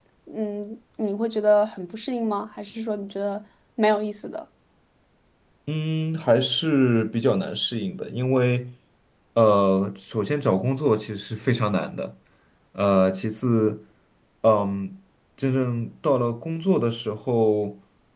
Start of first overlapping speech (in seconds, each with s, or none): none